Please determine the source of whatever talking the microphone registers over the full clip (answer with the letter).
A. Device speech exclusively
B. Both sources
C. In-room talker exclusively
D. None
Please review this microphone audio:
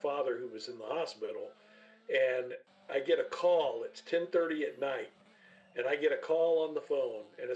A